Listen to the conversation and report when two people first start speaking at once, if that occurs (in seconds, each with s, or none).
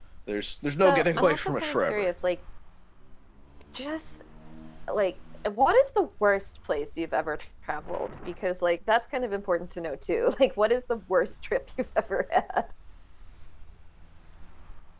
0.7 s